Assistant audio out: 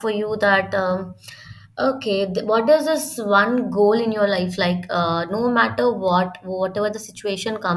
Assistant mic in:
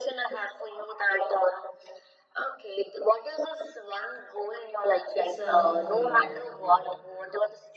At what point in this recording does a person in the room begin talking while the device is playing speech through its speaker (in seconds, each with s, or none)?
5.1 s